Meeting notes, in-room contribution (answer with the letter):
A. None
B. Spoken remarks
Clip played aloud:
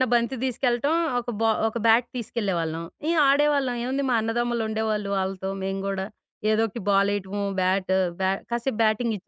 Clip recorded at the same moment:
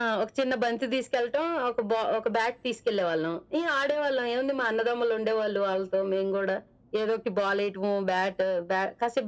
A